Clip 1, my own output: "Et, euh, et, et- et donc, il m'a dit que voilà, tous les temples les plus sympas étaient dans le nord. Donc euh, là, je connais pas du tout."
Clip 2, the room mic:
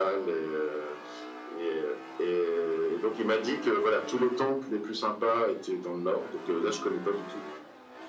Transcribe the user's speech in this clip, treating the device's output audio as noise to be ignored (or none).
none